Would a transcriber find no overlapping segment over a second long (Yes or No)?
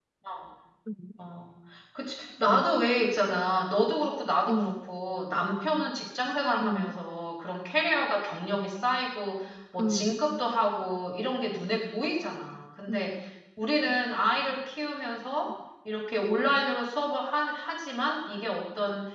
Yes